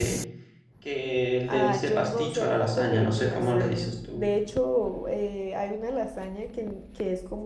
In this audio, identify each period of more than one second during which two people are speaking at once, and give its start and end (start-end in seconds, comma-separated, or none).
1.5-4.3